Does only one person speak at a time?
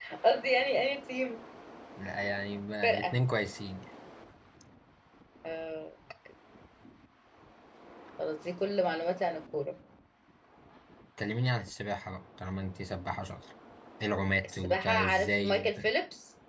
No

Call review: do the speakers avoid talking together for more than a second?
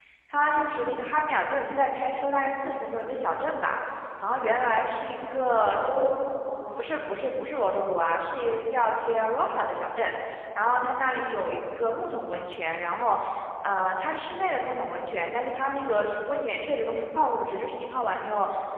Yes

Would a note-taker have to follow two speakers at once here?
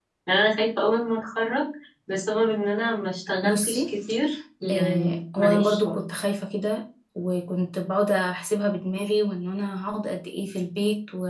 Yes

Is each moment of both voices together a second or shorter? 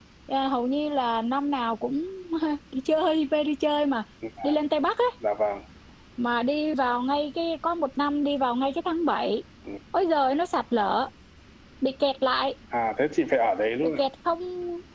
Yes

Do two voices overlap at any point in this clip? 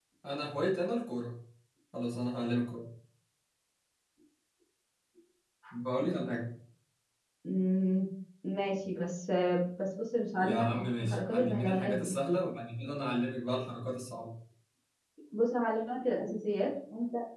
Yes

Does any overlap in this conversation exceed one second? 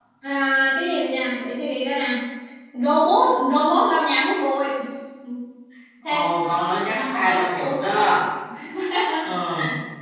Yes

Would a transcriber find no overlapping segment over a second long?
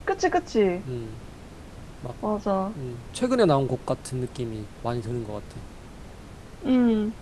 Yes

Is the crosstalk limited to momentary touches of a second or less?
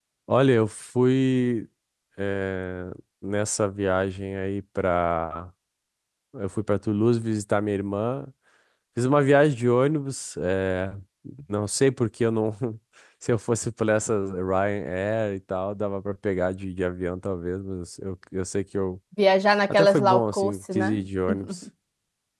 No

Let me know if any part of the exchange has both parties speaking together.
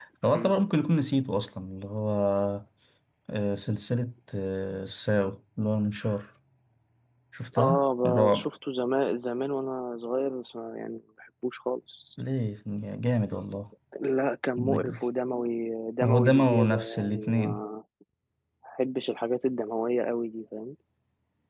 Yes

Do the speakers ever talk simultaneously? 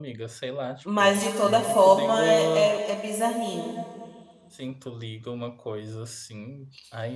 Yes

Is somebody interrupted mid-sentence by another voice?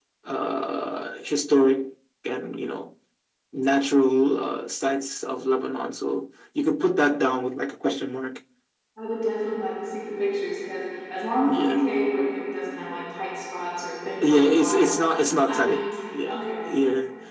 Yes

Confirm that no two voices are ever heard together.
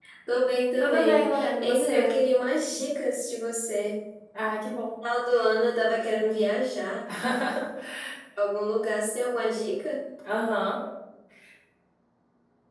No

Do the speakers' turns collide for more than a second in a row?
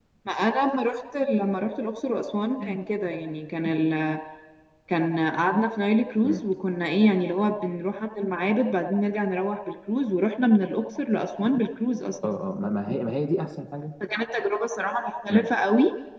No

